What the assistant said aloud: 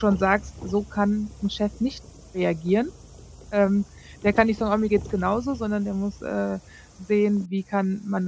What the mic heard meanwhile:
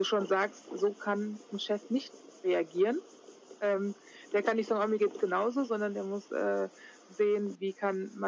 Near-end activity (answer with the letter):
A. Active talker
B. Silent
B